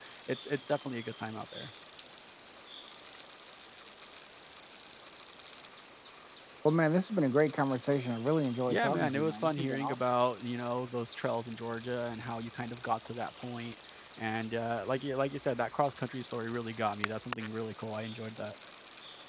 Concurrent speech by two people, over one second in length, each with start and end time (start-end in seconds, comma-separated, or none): 8.7-10.1